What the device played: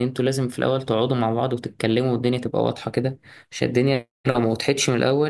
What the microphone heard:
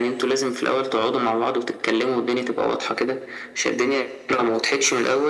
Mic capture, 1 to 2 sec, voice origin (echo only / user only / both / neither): echo only